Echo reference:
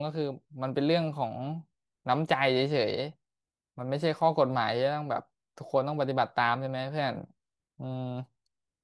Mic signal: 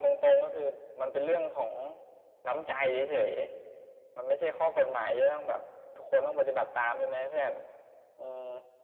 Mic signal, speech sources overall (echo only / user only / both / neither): echo only